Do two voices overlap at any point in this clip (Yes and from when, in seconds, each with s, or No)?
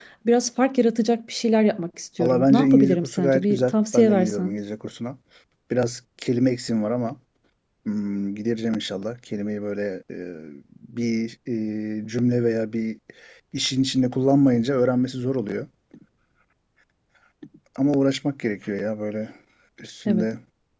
Yes, from 2.2 s